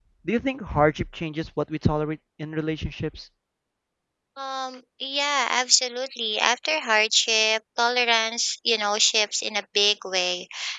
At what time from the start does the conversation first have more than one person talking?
none

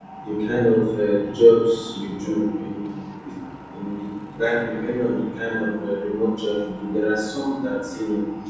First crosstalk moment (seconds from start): none

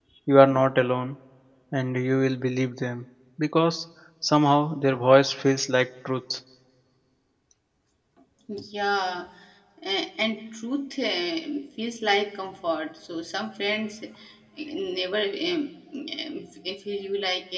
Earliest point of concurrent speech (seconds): none

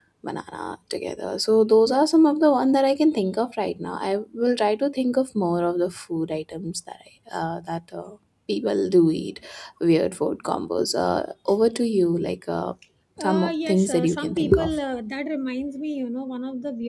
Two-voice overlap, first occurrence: 13.2 s

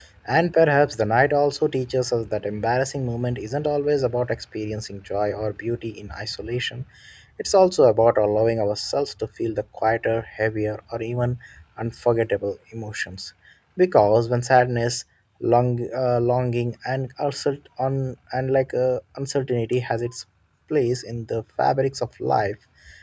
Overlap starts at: none

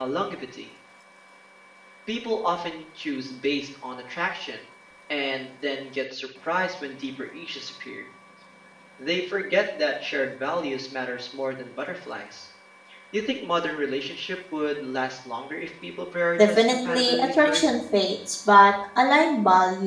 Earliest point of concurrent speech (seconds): 16.4 s

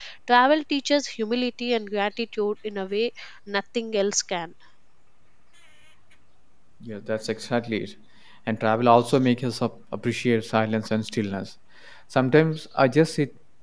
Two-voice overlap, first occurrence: none

